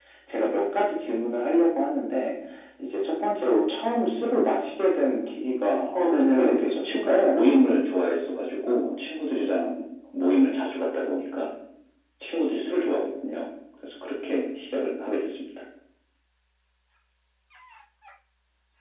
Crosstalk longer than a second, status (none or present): present